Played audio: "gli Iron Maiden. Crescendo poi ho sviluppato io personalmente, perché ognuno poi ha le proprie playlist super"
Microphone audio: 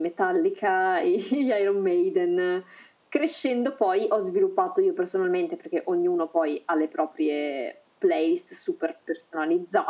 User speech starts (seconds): none

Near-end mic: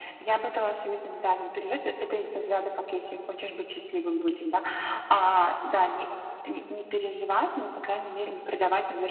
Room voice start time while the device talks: none

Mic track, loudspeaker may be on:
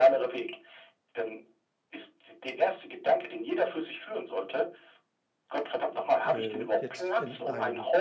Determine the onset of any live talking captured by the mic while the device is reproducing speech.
6.2 s

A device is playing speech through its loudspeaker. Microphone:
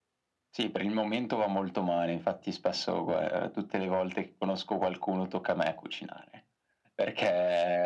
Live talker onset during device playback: none

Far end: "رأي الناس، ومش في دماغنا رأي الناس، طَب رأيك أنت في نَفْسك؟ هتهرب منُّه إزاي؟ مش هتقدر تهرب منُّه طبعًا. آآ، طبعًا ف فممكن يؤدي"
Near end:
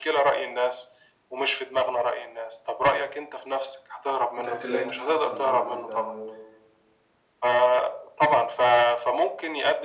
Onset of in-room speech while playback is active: 4.4 s

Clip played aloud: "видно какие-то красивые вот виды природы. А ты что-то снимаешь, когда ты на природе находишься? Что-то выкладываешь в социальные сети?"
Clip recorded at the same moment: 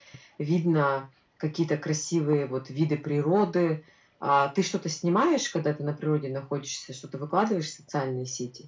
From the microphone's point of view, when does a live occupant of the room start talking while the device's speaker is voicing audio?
none

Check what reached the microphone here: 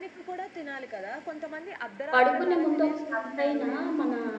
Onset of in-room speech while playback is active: 2.1 s

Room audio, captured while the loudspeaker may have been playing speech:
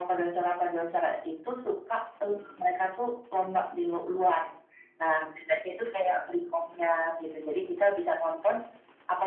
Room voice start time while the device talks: none

